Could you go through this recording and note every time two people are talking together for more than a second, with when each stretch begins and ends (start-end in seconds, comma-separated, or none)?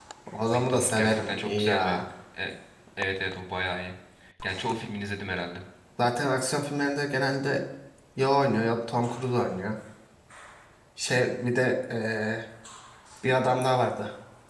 0.5-2.0